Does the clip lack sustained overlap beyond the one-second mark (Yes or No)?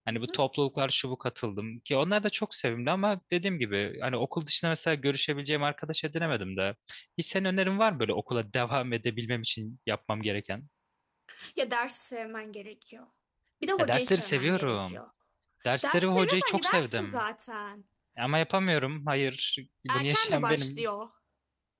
No